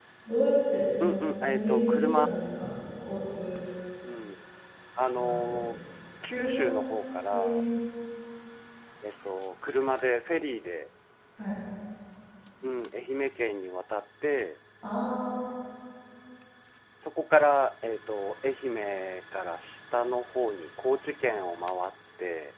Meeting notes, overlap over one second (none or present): present